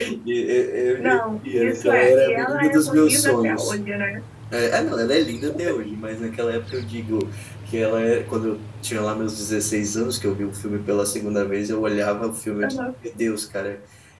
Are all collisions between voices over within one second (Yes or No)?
No